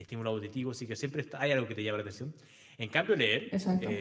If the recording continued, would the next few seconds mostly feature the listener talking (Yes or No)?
No